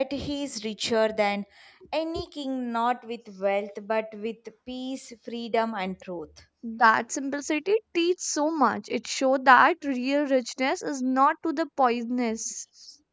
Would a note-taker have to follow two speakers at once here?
No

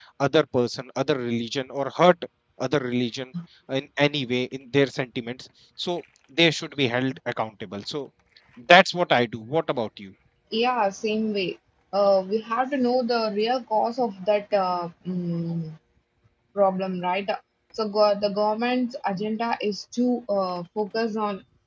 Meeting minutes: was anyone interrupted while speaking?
No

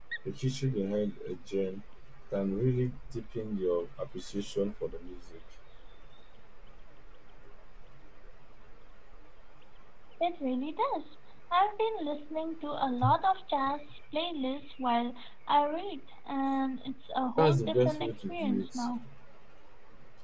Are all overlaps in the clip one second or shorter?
No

